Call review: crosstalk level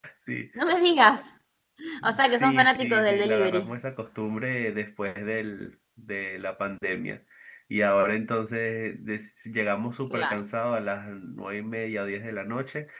present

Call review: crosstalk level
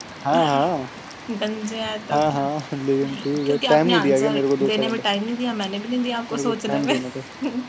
present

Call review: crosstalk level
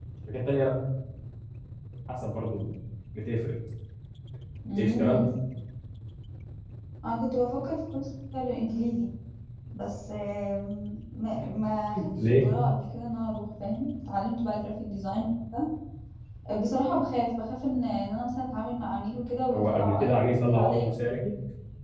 present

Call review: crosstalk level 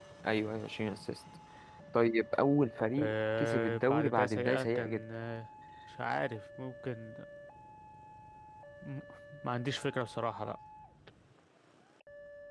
present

